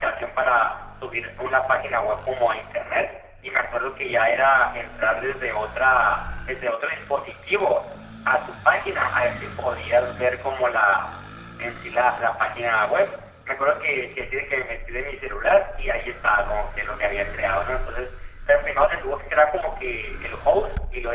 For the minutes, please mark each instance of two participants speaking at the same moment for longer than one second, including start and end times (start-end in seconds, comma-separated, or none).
none